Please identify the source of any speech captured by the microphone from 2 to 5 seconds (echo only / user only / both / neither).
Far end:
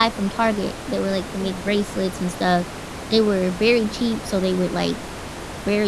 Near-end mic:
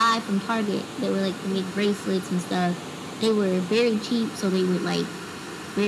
echo only